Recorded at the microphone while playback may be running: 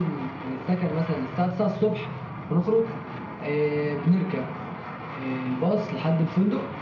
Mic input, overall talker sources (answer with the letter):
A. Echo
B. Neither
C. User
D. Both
A